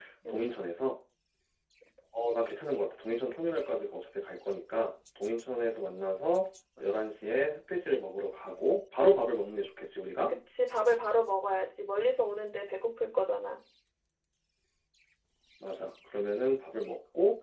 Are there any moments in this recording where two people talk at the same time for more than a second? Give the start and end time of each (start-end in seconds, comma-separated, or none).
none